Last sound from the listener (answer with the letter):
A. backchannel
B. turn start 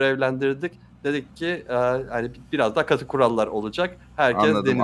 B